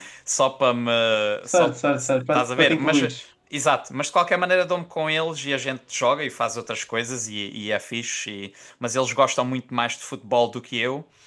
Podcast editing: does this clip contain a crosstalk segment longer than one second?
Yes, from 1.5 s

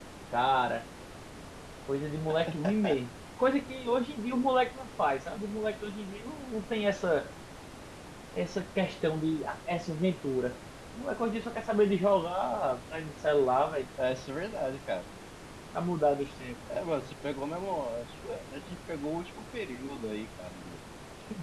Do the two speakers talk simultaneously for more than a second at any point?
No

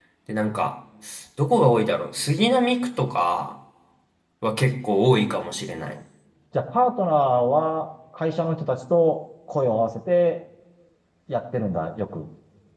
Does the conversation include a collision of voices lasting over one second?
No

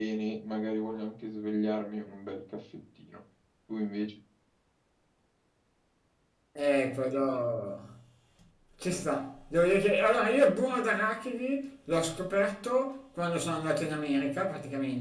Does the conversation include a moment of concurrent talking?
No

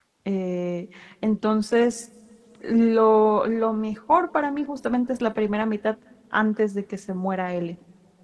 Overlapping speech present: No

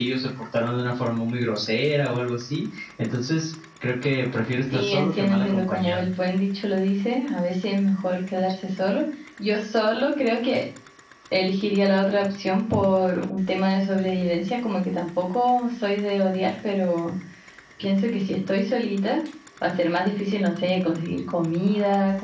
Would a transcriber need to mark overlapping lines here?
Yes, from 4.7 s

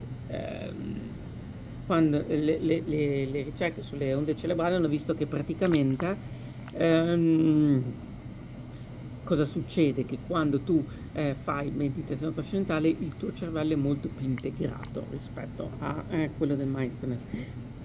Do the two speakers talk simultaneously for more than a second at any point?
No

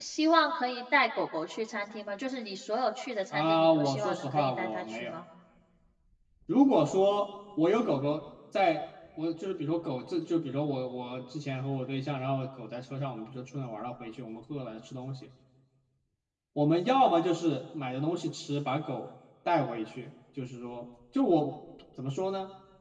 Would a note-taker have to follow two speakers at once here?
Yes, from 3.3 s

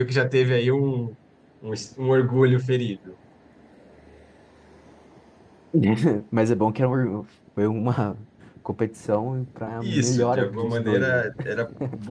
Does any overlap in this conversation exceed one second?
Yes, from 9.8 s

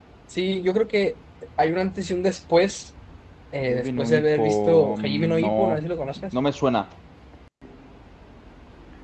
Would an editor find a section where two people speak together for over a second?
Yes, from 3.7 s

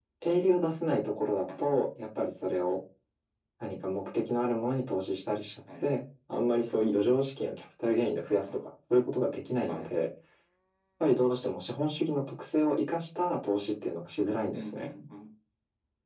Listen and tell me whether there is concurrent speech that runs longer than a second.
No

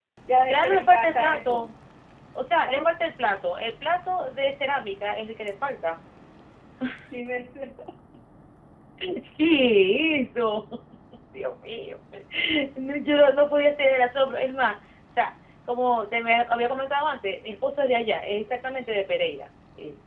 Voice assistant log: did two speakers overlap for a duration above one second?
Yes, from 0.5 s

